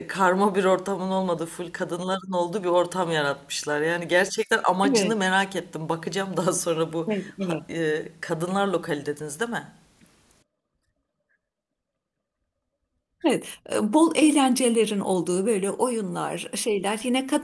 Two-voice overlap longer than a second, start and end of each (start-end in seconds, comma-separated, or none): none